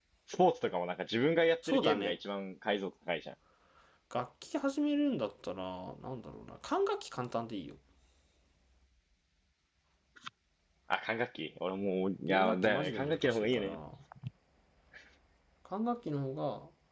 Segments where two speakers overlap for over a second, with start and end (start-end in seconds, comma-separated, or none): 12.3-13.8